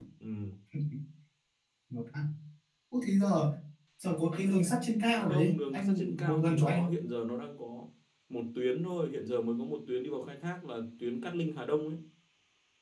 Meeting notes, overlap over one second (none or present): present